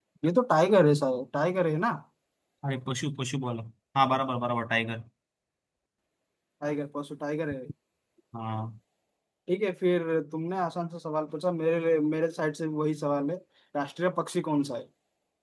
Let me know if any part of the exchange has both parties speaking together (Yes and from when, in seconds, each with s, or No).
No